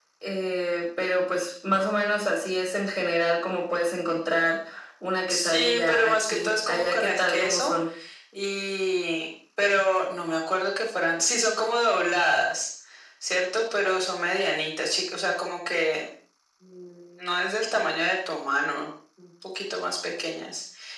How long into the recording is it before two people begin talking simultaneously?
5.3 s

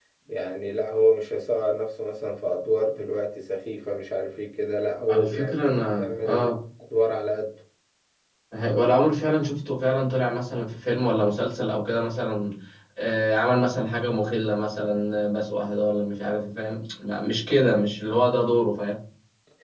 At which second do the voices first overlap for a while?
5.1 s

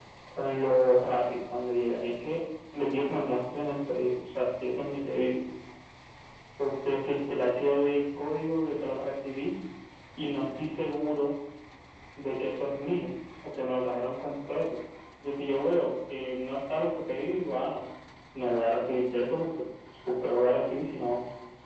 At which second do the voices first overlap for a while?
none

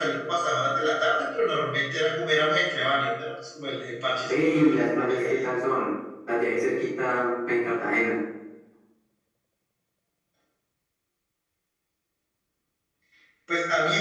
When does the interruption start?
4.2 s

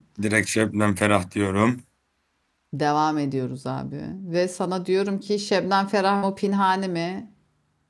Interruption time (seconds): none

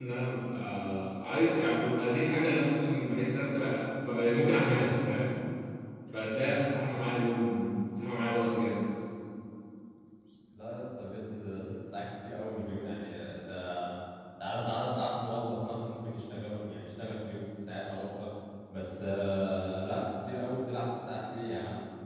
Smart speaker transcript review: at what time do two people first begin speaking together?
none

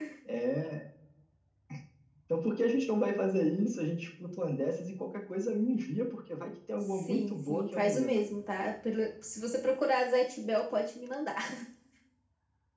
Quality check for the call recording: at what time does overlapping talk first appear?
6.9 s

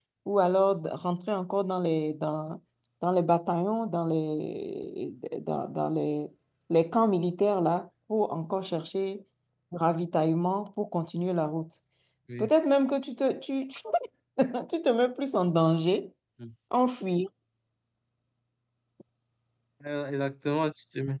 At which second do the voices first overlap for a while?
none

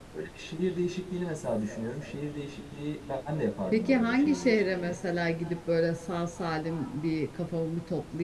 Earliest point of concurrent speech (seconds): 3.7 s

